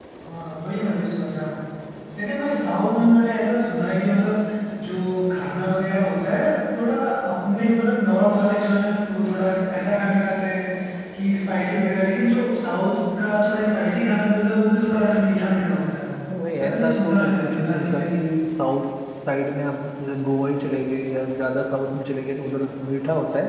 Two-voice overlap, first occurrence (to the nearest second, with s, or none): 17 s